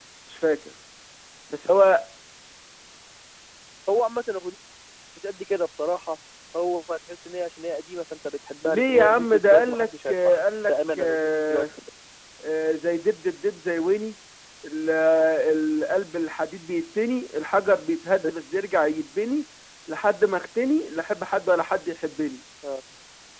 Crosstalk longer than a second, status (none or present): present